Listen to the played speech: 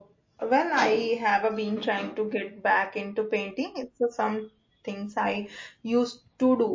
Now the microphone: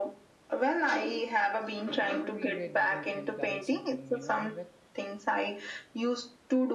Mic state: both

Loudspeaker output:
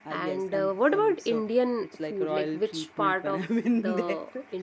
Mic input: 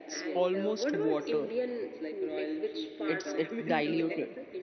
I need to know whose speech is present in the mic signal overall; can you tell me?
both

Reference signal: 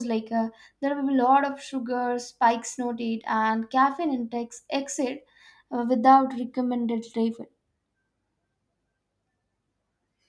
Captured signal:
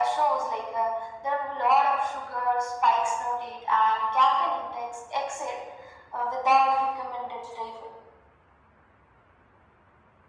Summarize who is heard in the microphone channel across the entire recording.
echo only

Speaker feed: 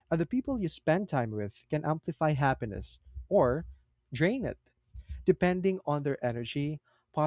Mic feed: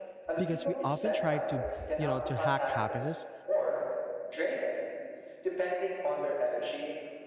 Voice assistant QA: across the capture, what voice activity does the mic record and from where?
both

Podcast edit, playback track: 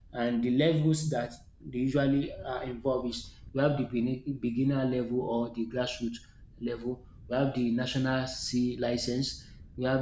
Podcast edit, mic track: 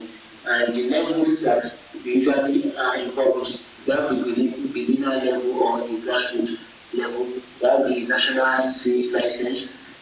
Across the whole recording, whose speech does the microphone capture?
echo only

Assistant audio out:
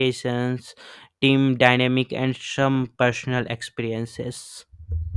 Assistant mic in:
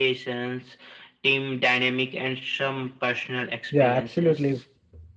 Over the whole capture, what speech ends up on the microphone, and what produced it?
both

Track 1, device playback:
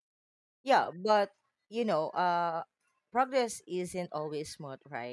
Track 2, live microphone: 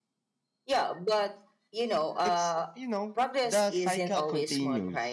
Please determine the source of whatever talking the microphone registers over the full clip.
both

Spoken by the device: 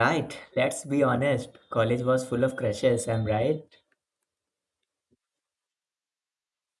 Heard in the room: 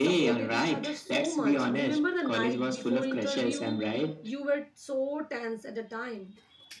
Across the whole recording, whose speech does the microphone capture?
both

